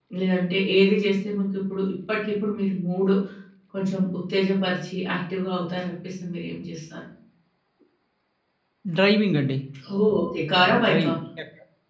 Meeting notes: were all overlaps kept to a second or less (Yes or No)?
Yes